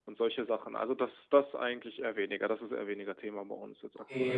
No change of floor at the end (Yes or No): No